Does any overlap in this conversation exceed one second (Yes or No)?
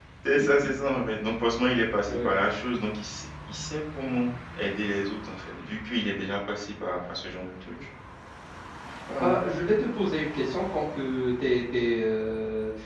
No